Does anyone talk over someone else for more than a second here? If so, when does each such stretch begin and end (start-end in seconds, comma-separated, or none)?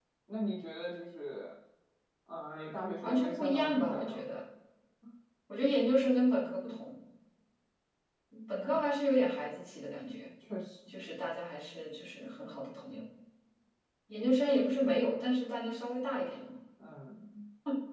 3.0-4.3